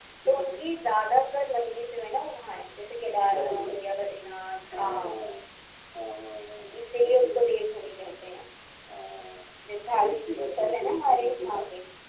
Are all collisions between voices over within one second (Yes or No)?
No